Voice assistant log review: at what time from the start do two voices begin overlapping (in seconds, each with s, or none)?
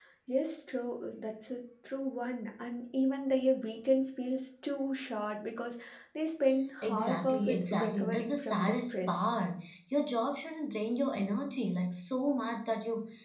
6.8 s